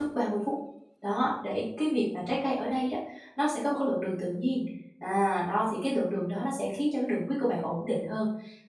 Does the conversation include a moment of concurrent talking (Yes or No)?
No